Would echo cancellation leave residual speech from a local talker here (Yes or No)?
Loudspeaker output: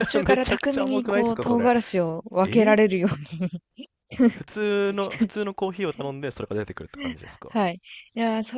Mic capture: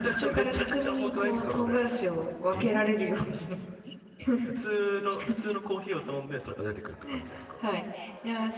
No